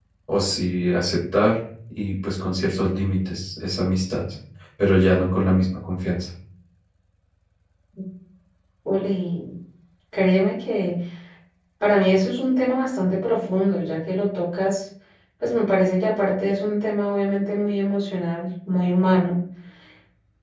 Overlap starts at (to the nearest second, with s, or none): none